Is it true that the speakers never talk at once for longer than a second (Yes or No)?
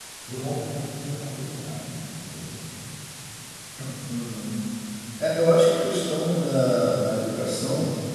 Yes